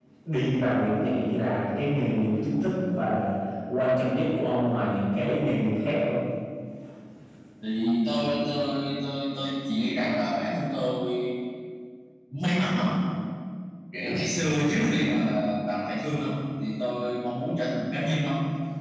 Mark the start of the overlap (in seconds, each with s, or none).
none